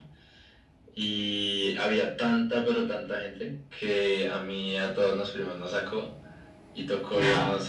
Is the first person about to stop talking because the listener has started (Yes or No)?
No